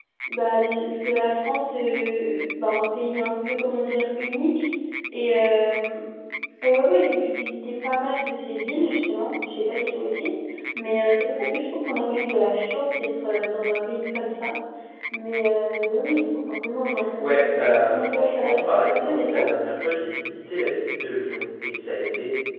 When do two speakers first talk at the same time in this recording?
17.2 s

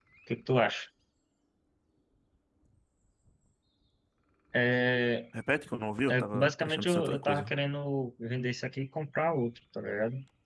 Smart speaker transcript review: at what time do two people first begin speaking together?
6.1 s

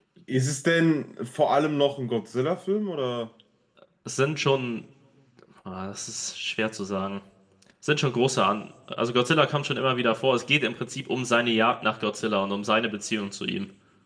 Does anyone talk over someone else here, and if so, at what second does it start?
none

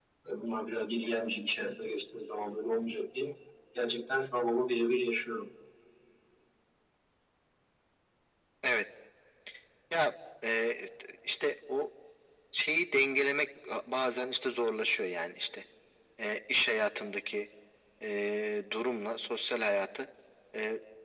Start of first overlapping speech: none

